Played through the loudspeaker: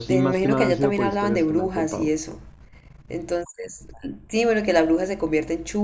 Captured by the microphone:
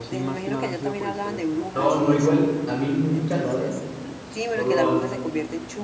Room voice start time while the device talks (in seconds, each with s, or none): 1.8 s